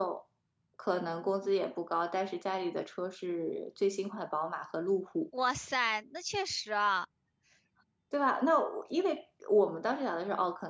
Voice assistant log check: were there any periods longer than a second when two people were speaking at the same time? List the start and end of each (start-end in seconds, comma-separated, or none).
none